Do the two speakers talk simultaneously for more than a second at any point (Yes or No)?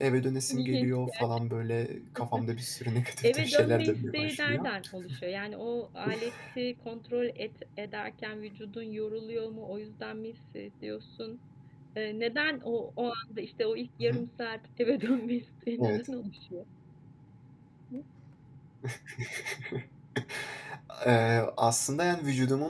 Yes